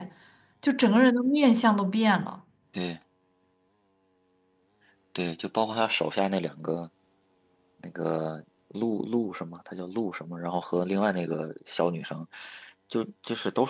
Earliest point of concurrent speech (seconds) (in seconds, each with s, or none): none